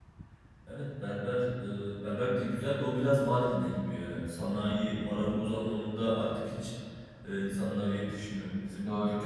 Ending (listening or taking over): listening